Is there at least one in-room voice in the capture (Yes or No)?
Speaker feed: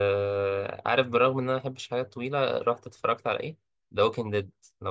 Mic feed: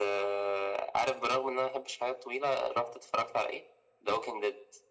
No